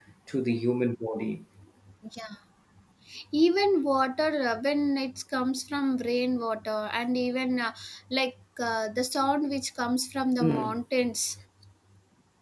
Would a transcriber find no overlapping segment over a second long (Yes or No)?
Yes